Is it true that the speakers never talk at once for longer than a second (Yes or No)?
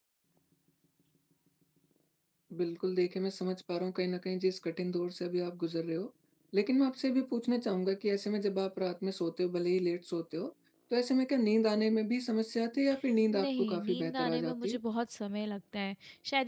No